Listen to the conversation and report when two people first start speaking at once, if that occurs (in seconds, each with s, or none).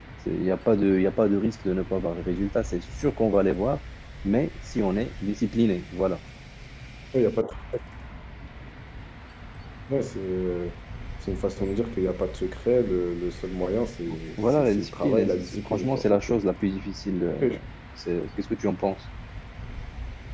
14.5 s